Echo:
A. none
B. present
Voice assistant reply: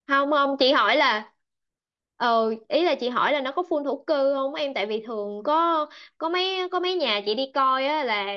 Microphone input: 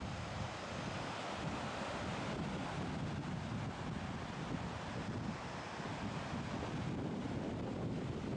A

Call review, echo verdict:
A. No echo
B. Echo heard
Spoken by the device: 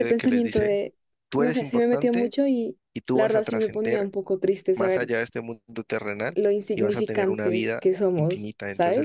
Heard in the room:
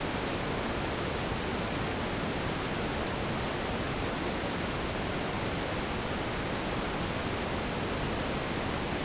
A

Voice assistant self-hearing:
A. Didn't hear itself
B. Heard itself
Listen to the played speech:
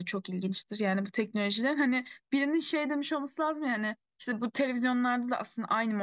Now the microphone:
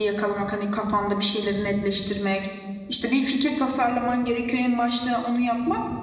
A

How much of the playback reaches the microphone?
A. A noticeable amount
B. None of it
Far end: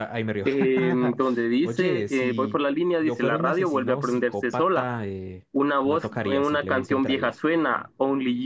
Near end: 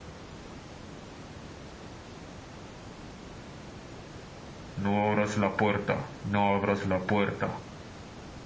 B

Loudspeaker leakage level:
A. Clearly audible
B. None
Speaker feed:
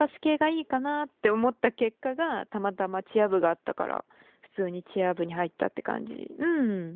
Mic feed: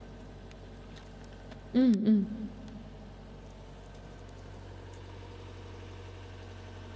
B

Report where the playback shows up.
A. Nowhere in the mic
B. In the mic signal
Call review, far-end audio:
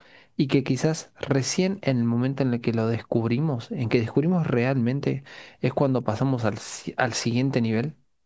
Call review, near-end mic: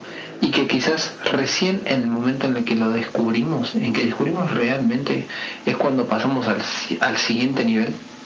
B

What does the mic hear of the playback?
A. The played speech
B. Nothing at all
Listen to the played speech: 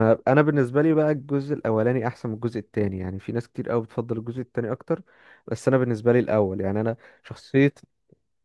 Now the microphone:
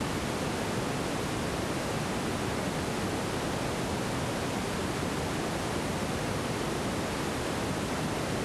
B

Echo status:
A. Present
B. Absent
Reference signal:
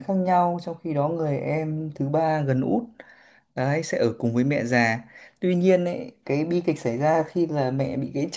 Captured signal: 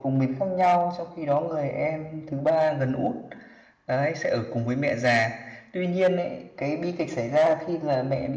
A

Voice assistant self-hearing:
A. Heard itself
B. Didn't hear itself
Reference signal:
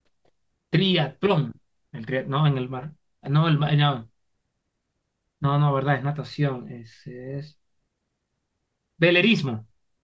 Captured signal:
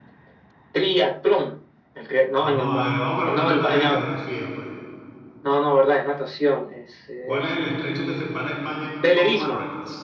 A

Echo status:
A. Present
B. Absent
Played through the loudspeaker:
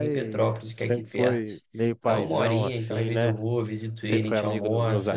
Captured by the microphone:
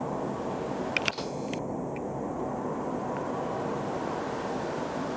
B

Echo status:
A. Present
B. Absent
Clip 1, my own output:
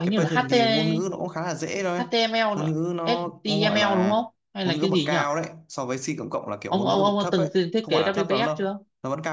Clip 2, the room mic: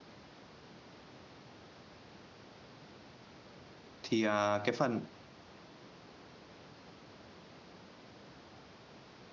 B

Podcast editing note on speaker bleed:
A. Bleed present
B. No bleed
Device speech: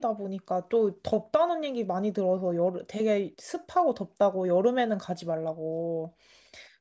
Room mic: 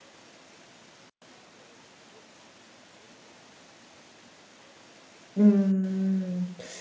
B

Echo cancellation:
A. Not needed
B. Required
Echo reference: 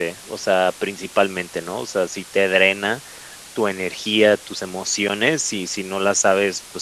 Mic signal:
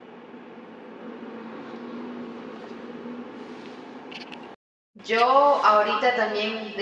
A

